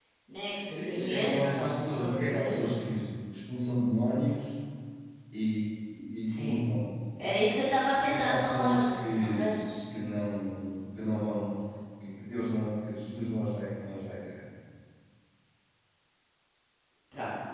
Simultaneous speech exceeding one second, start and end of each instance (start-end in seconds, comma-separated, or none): 0.7-2.7, 8.0-9.6